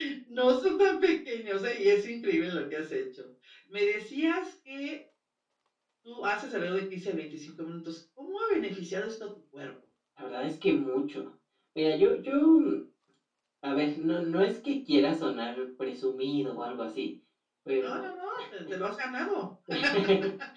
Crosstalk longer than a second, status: none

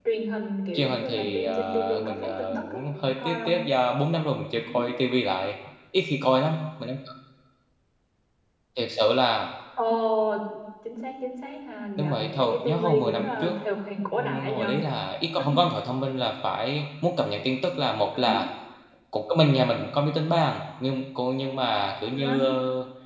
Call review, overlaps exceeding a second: present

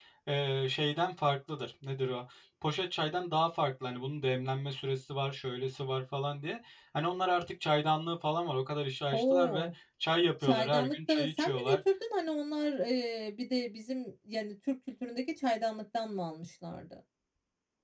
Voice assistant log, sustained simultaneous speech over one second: present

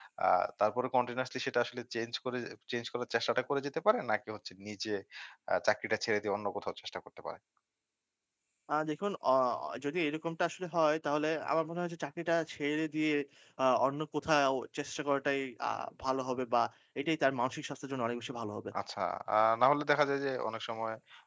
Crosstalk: none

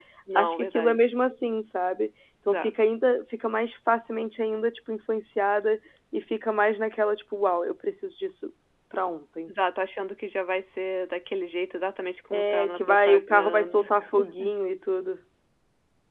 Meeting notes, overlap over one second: present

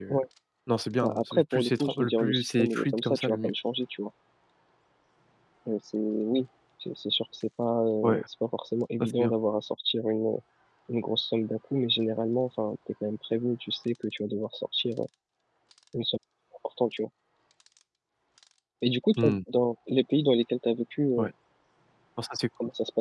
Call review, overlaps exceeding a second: present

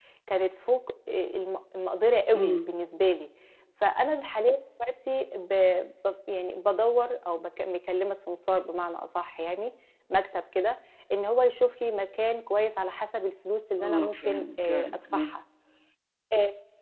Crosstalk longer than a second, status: present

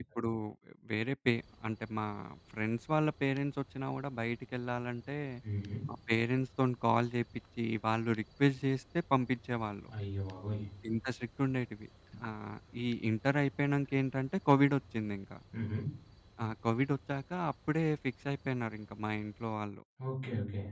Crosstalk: none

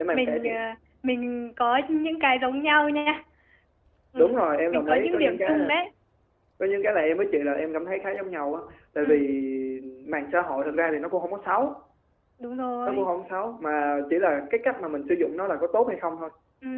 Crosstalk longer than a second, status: present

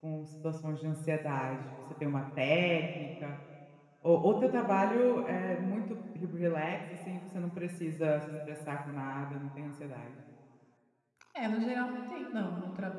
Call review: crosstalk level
none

